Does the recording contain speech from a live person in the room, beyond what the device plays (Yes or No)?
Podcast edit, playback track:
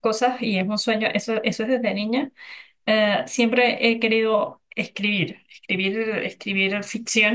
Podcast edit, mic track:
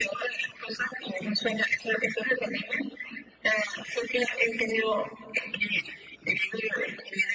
No